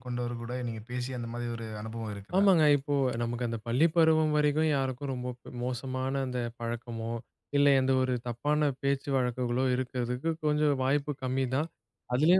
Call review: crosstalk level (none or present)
none